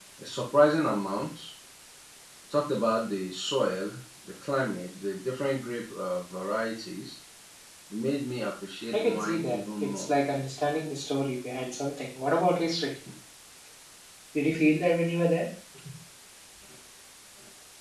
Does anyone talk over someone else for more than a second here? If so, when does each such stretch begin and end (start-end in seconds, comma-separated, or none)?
8.9-10.1